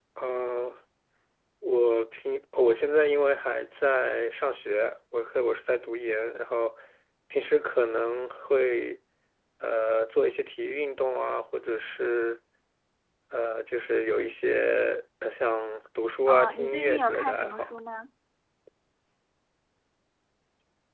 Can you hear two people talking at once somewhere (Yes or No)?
Yes